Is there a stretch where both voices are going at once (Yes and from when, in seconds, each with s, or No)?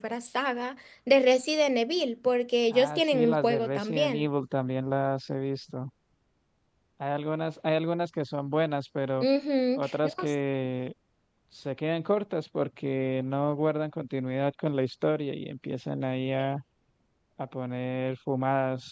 Yes, from 2.7 s